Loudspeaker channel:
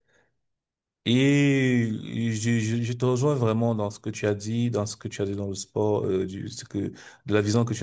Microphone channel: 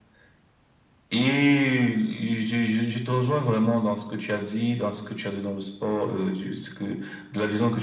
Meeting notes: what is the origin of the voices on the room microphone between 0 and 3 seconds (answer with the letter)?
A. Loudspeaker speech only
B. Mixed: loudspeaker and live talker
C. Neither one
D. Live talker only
A